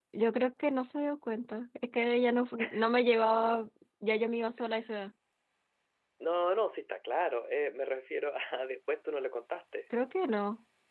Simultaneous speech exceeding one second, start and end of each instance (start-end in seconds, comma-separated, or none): none